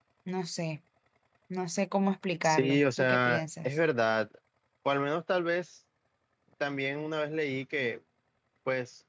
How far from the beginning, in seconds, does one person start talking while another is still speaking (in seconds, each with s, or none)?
2.4 s